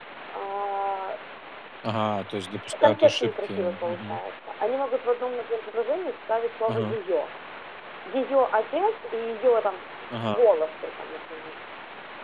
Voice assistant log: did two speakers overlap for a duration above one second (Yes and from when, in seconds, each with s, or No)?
Yes, from 2.8 s